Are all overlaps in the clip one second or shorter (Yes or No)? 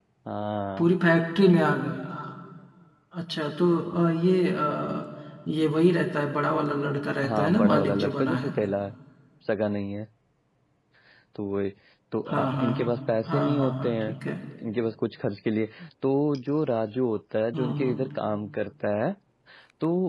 No